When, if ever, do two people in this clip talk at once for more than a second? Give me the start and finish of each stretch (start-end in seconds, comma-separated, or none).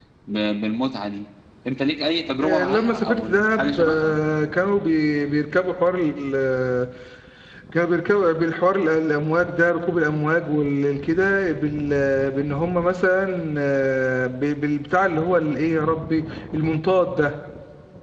2.4-4.1